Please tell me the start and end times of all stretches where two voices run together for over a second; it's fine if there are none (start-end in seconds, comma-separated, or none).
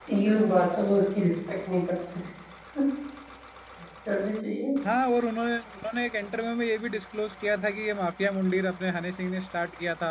none